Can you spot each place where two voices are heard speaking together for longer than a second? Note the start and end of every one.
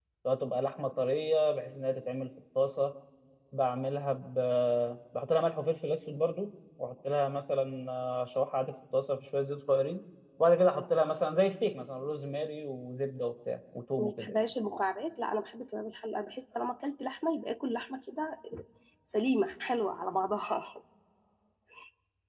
none

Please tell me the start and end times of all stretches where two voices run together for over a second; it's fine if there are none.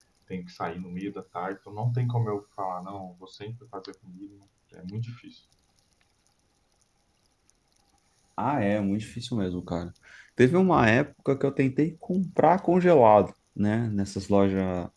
none

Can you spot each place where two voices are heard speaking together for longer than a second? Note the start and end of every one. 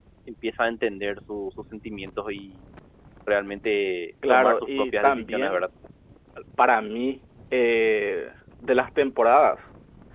4.3-5.7

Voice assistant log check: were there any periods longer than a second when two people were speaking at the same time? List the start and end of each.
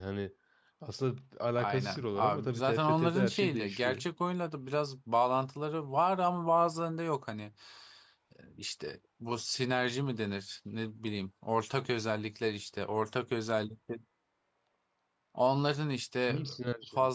1.6-4.0

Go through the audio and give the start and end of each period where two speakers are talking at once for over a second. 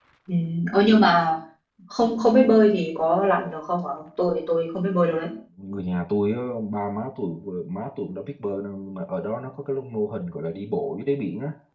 none

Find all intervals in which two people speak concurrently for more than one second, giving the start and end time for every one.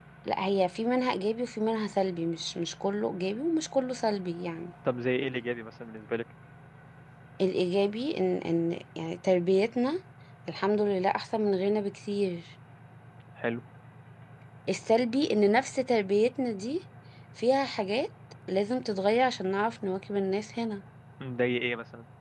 none

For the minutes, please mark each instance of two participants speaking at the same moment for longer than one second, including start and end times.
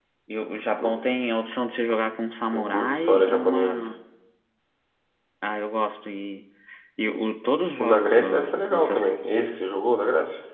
2.5-3.9, 7.8-9.1

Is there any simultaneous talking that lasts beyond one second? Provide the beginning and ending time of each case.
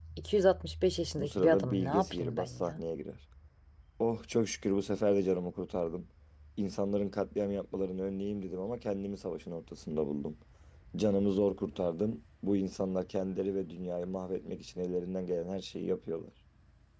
1.2-2.8

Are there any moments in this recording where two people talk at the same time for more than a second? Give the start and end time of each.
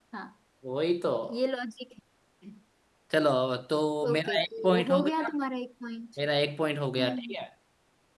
4.1-5.3

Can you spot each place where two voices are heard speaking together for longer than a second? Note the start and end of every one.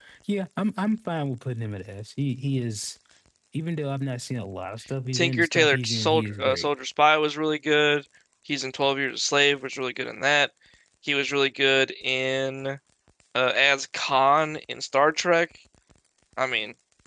5.1-6.7

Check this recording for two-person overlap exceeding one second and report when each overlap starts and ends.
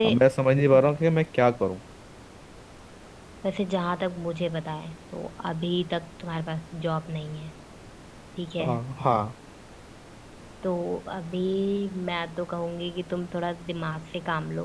none

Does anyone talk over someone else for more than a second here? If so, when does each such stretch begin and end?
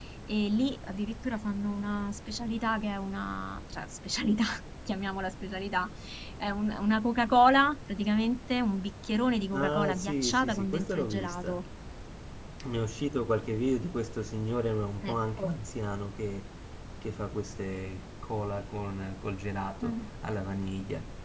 9.5-11.6

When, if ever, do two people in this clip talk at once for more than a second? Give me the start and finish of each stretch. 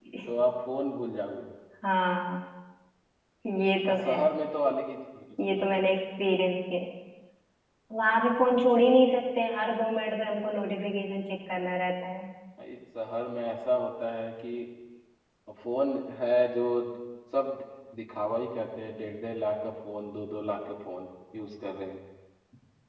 none

